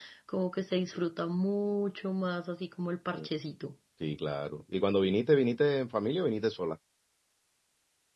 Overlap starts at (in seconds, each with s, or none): none